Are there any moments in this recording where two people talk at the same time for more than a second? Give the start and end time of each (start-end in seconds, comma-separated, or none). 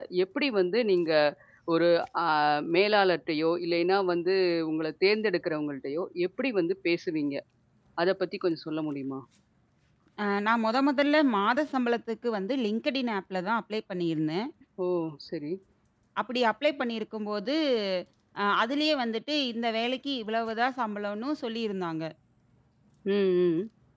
none